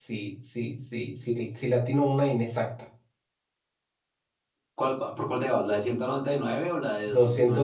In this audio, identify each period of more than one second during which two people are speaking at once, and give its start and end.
none

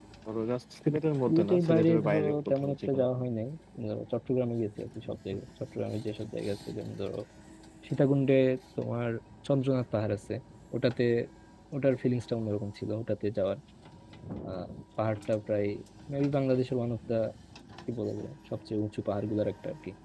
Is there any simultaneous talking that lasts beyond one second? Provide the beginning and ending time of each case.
1.3-3.0

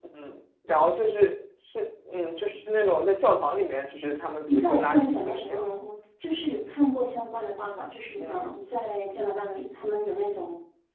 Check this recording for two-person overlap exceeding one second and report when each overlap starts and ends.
4.5-5.7

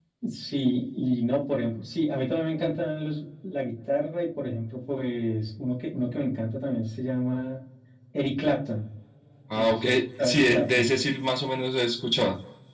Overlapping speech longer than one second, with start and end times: 9.6-10.9

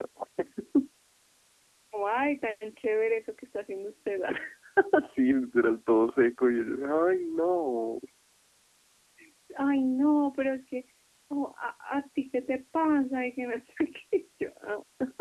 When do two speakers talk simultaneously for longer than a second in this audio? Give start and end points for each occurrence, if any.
none

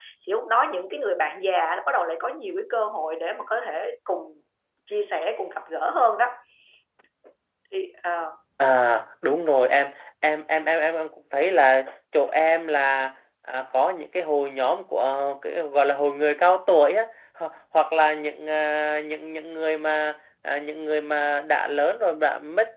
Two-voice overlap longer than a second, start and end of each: none

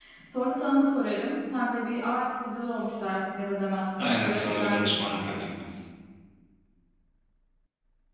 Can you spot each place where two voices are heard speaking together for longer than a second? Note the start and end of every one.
4.0-5.4

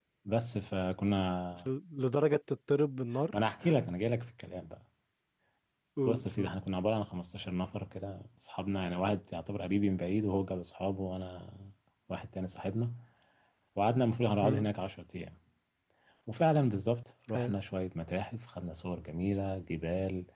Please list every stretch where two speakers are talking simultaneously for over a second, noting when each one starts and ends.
none

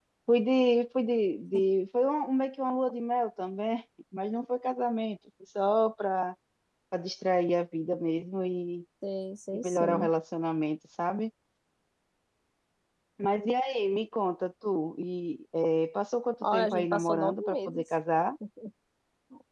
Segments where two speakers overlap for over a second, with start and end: 16.4-17.8

